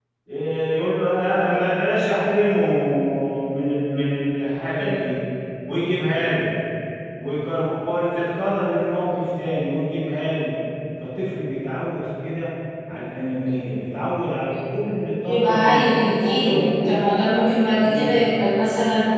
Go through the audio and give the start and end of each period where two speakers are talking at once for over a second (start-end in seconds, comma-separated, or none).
15.2-17.2